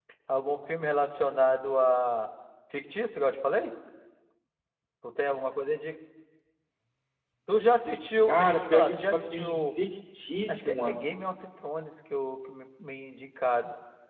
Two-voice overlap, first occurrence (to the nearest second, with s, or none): 8 s